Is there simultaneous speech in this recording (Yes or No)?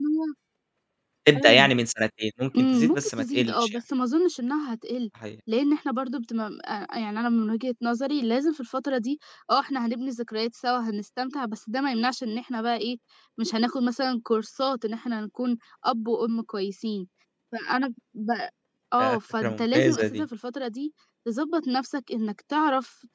Yes